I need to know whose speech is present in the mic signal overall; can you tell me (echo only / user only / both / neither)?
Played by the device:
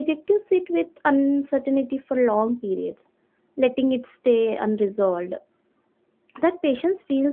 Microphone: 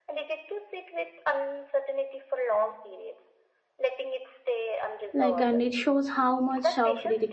both